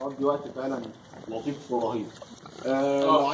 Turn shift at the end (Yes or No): No